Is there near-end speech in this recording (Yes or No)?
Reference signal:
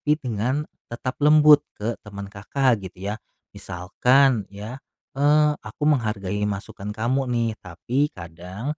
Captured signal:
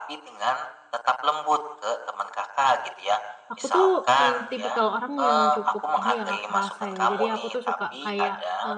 Yes